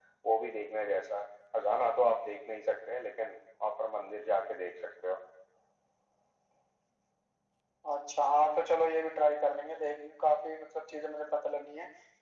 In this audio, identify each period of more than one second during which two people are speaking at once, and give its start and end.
none

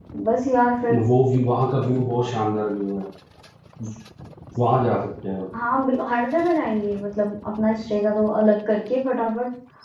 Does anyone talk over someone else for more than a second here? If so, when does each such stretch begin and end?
none

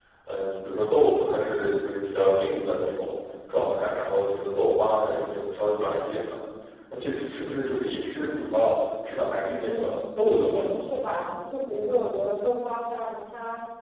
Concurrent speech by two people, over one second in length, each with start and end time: 9.4-10.8

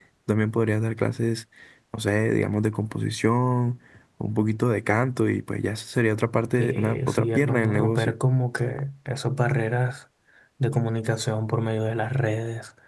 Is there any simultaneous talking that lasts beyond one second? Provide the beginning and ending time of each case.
6.6-8.1

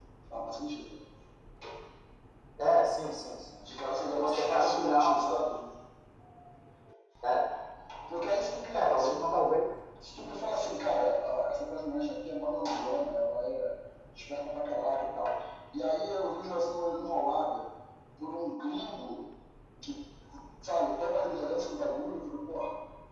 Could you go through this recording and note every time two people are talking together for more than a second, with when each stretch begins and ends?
3.6-5.5

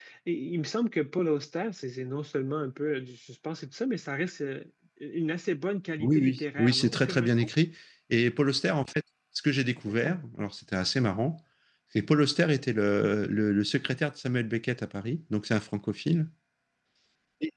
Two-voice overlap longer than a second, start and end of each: 6.0-7.5

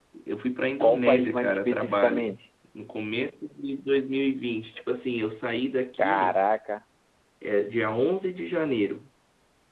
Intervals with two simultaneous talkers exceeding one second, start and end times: 0.8-2.3

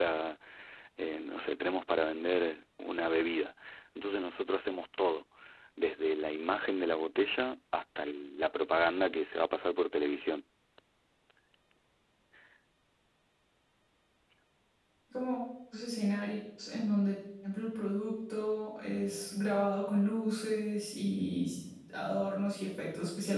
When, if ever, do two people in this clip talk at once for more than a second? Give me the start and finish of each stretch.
none

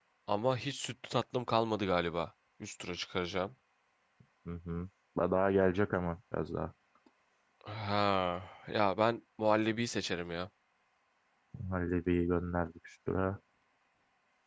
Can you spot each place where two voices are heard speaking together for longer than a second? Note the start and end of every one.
none

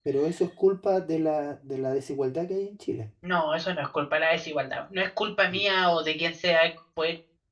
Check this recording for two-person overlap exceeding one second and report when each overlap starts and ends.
none

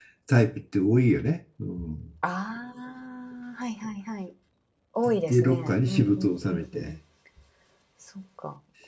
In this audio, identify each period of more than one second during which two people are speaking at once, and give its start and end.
5.3-6.9

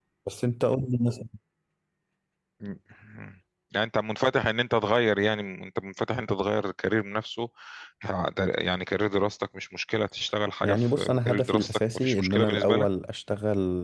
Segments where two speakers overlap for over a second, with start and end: 10.6-12.9

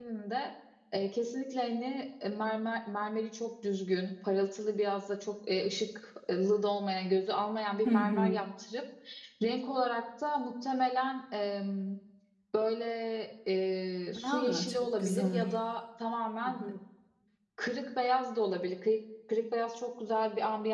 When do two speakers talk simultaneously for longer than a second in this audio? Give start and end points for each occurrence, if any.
14.2-15.5

